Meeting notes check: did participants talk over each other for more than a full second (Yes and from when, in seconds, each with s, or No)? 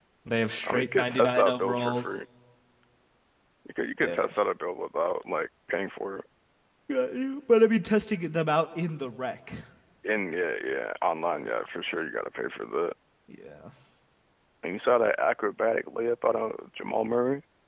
Yes, from 0.6 s